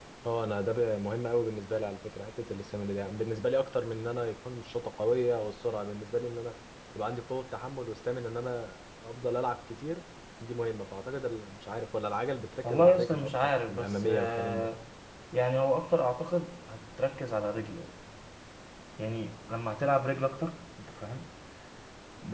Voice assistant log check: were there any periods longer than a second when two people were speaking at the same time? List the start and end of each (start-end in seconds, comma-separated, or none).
12.6-14.7